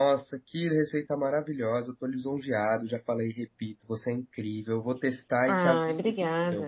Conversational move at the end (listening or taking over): taking over